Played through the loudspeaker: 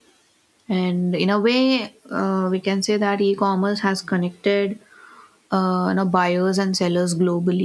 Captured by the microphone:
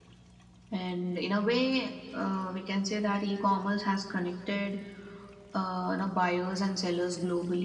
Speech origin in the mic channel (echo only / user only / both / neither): echo only